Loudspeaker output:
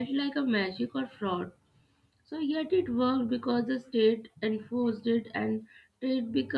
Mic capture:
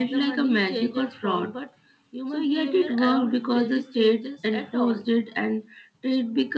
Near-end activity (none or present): present